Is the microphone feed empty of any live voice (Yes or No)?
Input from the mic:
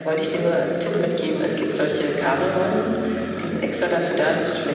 Yes